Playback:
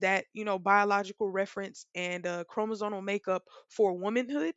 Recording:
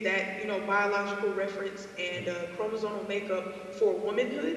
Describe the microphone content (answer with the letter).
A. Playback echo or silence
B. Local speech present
B